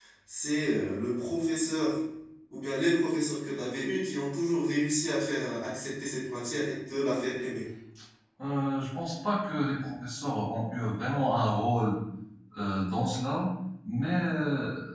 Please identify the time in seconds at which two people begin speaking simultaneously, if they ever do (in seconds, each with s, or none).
none